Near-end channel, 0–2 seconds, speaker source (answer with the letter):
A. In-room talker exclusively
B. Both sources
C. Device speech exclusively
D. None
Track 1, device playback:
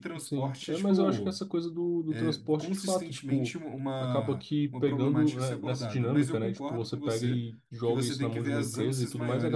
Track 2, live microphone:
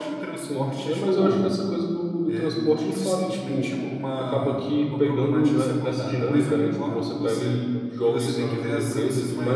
C